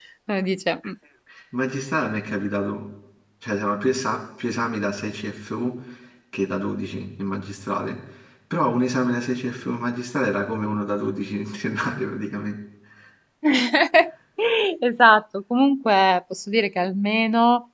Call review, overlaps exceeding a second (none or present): none